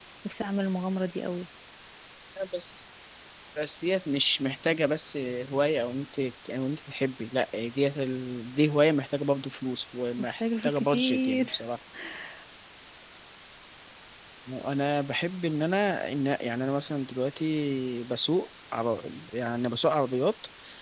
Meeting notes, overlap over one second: present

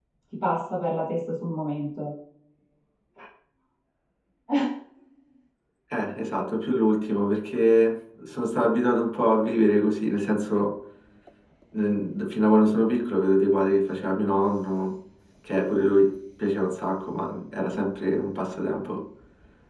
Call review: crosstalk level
none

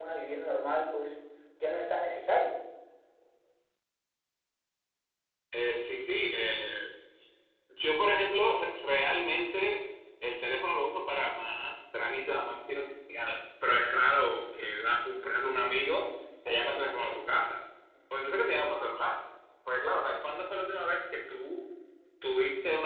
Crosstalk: none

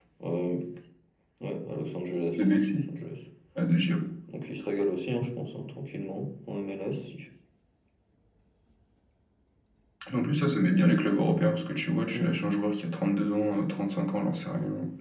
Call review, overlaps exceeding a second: none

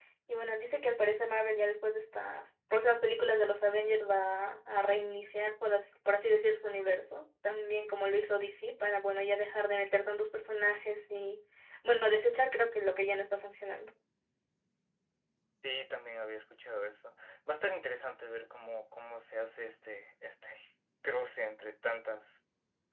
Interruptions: none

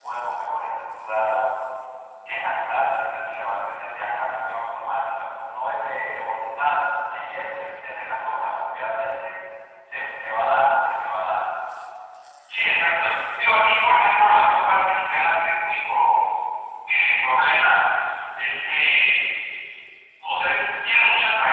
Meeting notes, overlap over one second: none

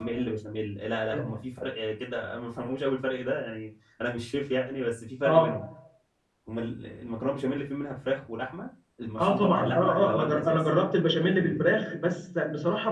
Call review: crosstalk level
present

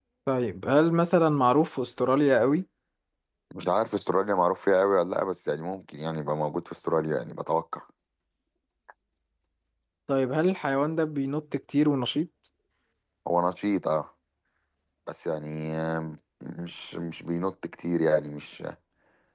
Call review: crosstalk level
none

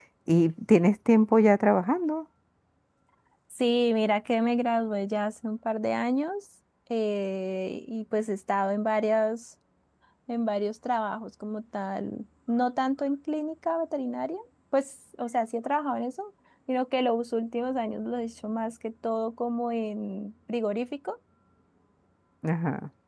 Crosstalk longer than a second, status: none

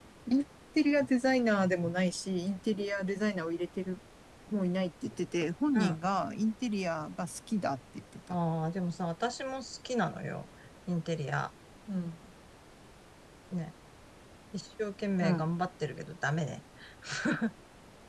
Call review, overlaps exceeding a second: none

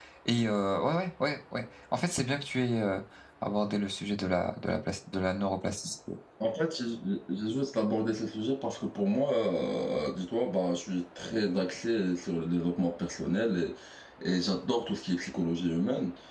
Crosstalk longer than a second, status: none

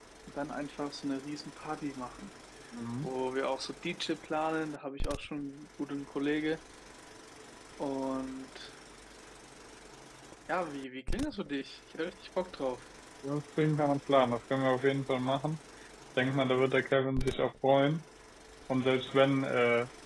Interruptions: none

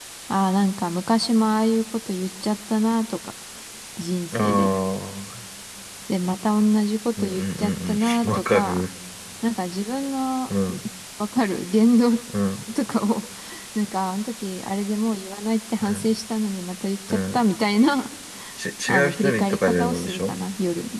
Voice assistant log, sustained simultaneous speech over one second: present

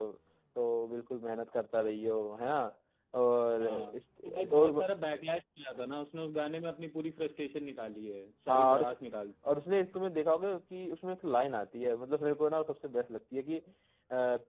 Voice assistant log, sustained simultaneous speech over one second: present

